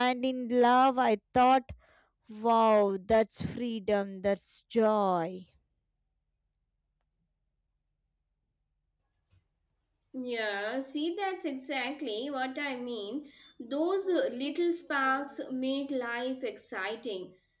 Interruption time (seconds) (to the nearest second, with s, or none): none